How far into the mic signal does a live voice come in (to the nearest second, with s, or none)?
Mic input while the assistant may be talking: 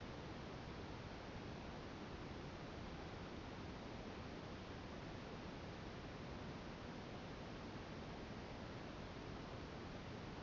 none